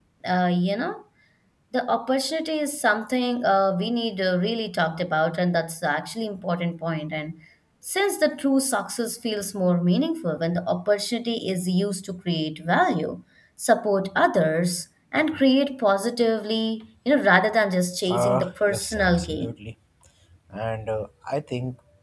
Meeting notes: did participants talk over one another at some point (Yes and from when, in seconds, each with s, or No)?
Yes, from 18.1 s